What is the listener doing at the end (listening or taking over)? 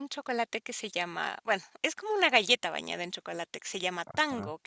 listening